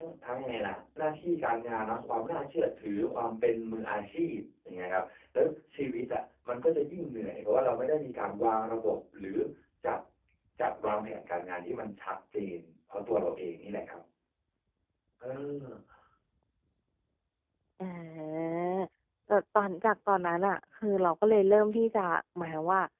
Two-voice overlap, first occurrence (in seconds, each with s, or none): none